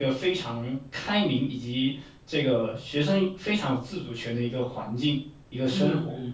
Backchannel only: No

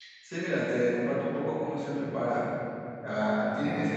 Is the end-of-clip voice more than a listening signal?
No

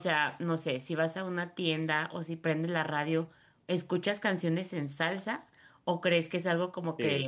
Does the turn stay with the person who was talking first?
Yes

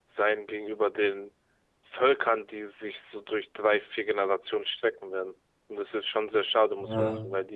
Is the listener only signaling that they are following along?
Yes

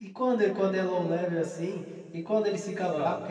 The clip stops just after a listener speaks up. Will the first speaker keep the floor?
Yes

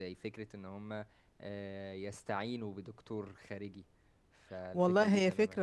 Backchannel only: No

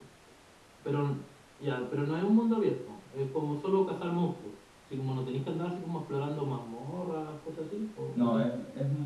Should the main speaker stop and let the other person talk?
Yes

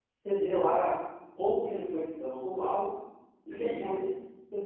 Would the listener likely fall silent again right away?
Yes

